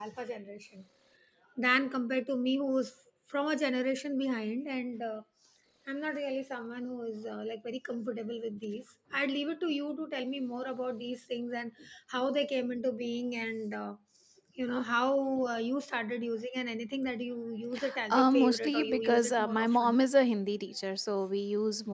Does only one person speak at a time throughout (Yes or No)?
No